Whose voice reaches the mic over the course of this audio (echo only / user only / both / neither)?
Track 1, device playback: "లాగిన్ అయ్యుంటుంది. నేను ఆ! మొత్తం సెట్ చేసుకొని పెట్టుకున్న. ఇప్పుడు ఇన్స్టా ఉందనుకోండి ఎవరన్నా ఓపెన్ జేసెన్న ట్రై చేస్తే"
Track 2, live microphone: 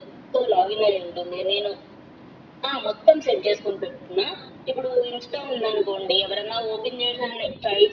echo only